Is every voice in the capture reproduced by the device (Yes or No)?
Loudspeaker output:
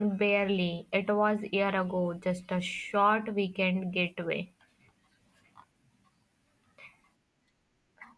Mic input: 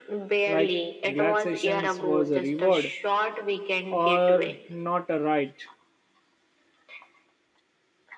No